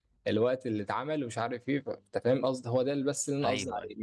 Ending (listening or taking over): taking over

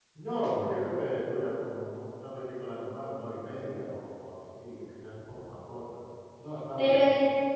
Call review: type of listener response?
taking over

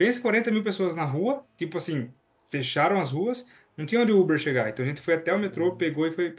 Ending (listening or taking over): listening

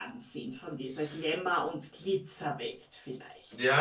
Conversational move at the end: taking over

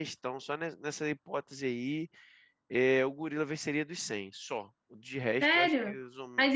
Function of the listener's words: taking over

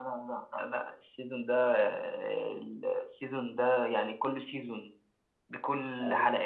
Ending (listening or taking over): listening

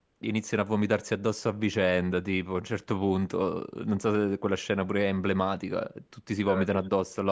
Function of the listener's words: listening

